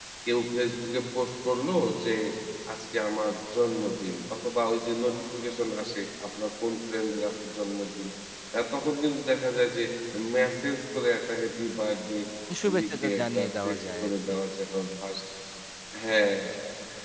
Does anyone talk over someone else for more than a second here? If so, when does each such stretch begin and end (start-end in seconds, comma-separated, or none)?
12.8-14.3